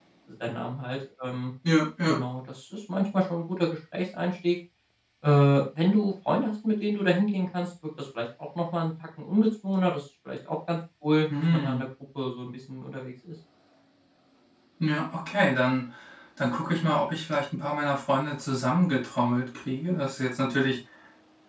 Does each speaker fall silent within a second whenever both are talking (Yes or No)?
Yes